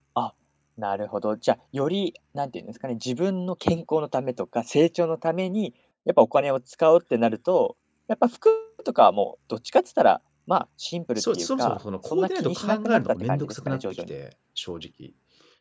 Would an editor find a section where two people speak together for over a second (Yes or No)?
Yes